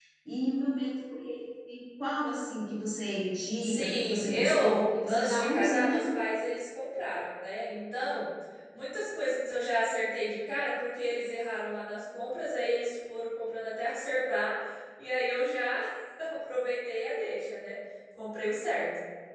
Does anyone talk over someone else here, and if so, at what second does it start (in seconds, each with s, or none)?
3.6 s